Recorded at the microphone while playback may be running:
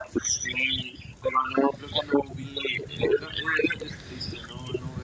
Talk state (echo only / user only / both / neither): echo only